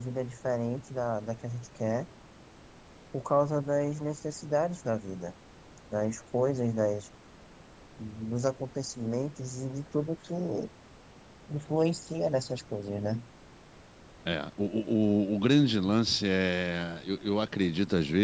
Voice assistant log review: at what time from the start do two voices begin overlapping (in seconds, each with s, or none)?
none